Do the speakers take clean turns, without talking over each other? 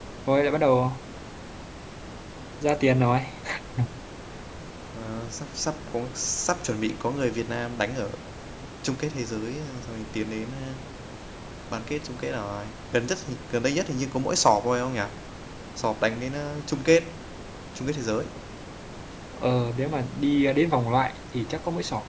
Yes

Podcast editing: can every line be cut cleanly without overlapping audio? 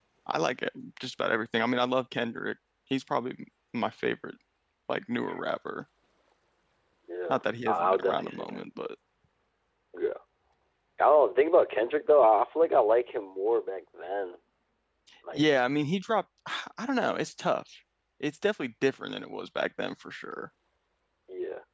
No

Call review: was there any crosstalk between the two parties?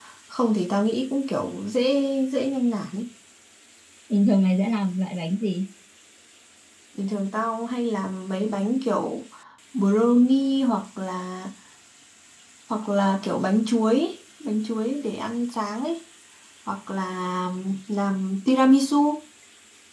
No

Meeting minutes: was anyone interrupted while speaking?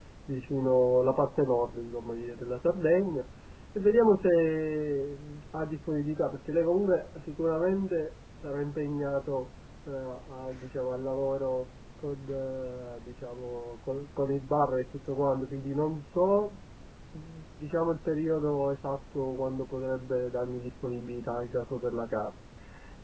No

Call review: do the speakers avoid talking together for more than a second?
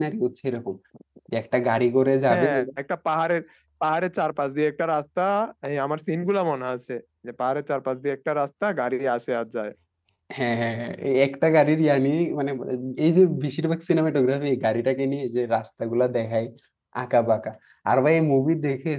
Yes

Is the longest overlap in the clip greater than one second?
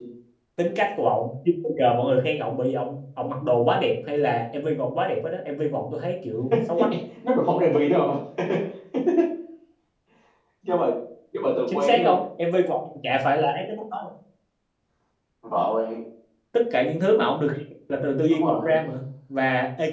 No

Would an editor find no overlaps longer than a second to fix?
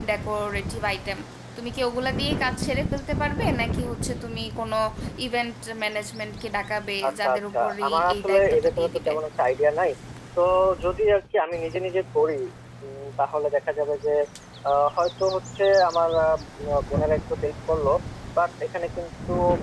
No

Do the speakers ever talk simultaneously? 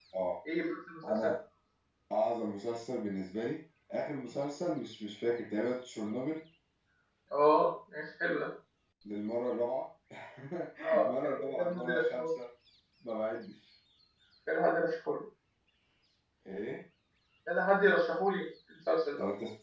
Yes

